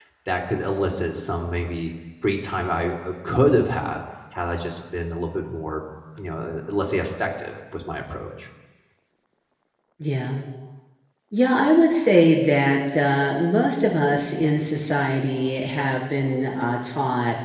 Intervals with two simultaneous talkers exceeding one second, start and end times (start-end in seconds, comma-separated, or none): none